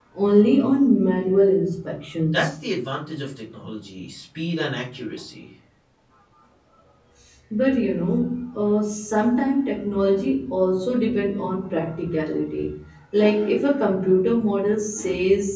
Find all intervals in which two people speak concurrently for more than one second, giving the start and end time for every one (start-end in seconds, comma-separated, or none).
none